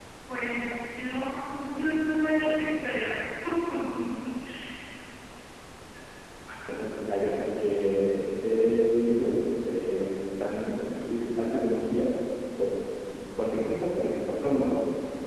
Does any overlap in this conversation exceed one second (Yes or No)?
No